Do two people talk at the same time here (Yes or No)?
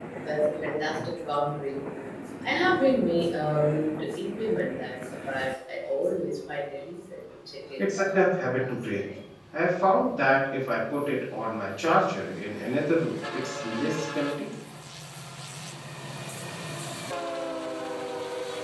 Yes